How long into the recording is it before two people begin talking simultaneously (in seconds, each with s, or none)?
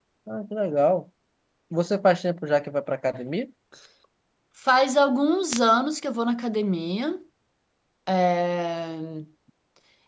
none